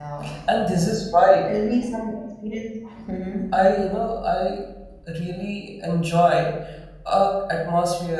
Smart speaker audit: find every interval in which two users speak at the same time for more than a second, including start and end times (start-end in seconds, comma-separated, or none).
none